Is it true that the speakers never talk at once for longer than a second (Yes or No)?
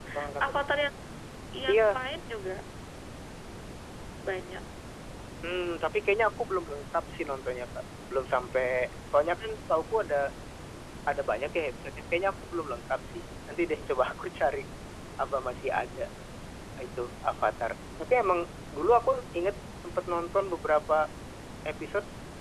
Yes